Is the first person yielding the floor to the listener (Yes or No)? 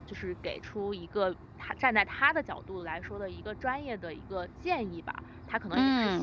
No